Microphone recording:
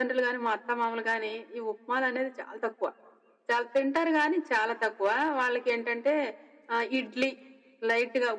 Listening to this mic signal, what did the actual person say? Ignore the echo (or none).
none